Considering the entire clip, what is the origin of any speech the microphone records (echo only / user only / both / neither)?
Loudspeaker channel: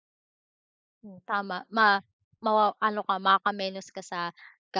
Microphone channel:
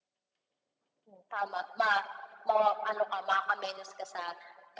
echo only